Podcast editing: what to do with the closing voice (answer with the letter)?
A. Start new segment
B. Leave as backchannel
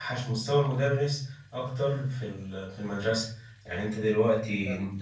B